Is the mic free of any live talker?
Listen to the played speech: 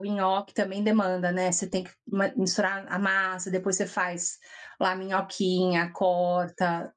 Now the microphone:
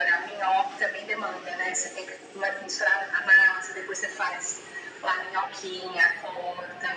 Yes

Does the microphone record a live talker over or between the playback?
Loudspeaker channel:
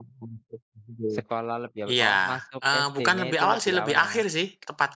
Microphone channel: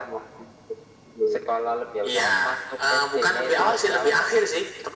No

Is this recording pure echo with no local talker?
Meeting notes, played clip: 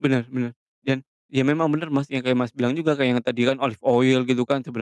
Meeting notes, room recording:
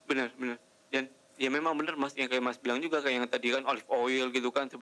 Yes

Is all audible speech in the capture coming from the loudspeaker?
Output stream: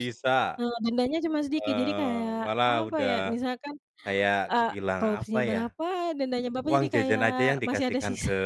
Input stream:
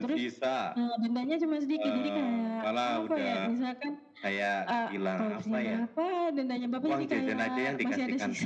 Yes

